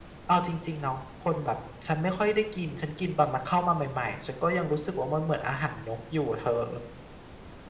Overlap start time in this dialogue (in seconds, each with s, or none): none